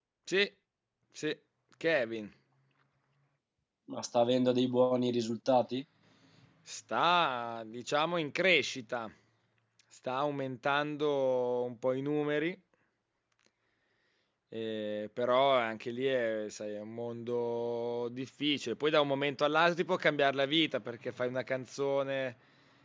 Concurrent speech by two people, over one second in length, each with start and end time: none

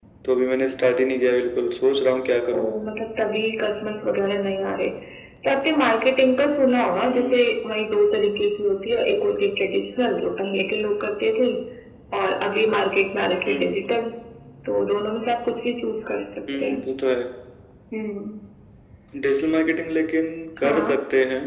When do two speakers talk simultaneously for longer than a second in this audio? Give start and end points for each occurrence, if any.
none

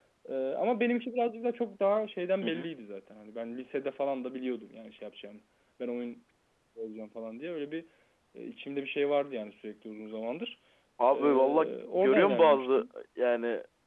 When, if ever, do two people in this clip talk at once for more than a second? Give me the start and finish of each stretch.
11.1-12.8

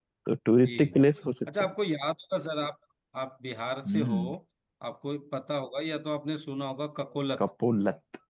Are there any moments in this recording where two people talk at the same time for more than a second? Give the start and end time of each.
none

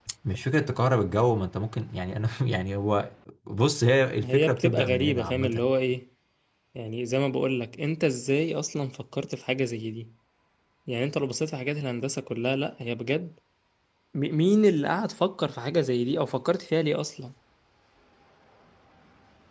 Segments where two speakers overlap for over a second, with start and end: 4.2-5.7

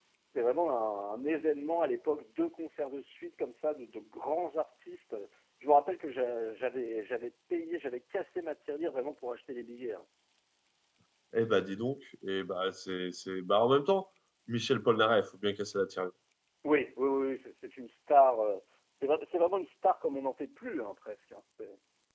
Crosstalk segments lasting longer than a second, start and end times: none

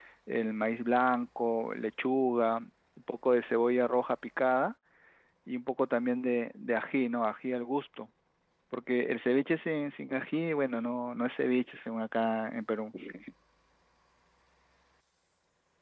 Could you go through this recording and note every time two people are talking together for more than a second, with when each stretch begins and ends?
none

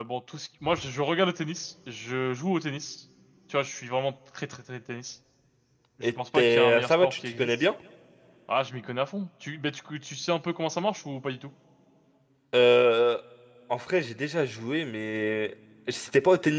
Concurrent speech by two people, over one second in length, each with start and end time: 6.0-7.5

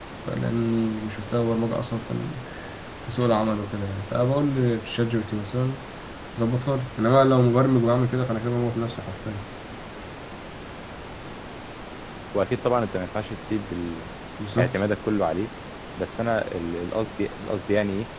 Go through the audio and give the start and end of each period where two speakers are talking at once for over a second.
none

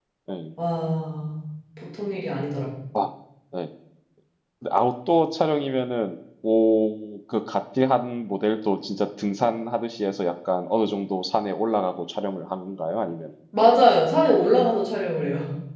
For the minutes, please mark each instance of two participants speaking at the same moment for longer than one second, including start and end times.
none

